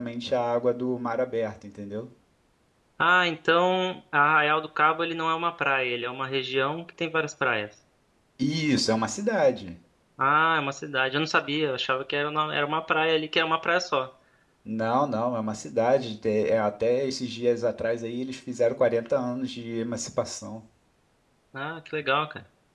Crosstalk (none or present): none